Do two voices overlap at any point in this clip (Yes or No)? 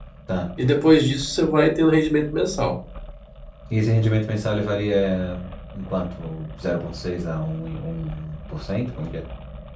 No